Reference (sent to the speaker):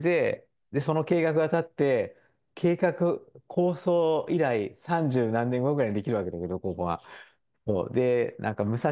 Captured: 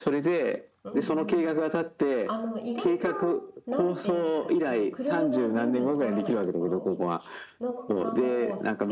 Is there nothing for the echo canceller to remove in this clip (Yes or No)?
No